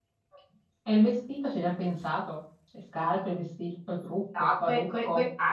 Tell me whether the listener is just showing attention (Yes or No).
No